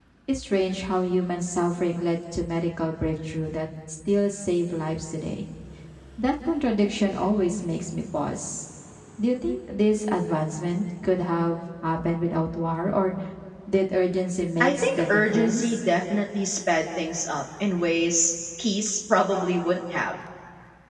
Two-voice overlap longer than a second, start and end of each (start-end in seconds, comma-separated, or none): 14.6-15.8